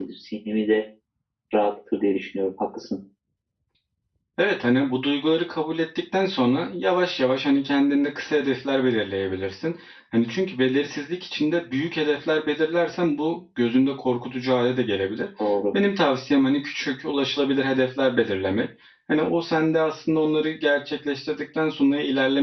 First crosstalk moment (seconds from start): none

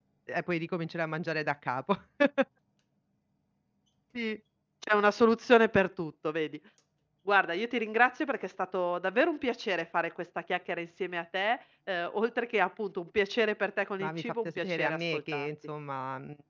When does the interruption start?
14.0 s

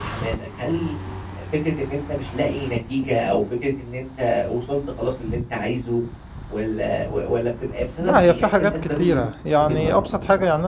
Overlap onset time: 8.0 s

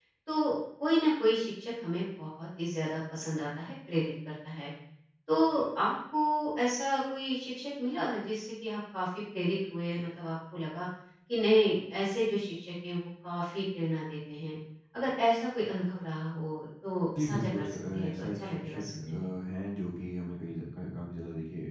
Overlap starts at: 17.1 s

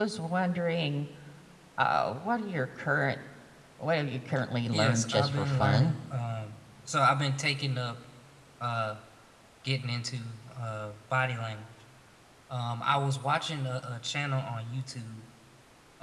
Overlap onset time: 4.7 s

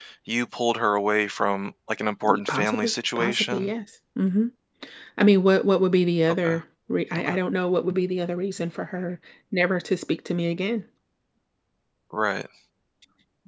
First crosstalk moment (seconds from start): 2.2 s

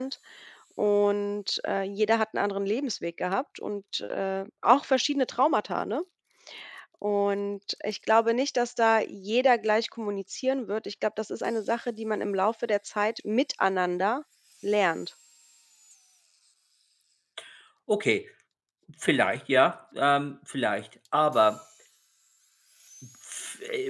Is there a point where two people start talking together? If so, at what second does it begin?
none

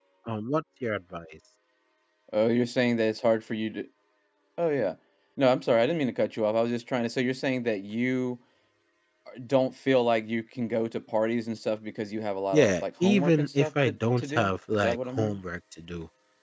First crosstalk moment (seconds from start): 12.5 s

